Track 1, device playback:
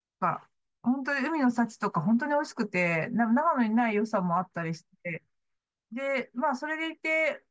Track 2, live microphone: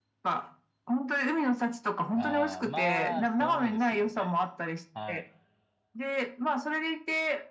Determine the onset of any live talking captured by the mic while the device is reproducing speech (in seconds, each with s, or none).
2.1 s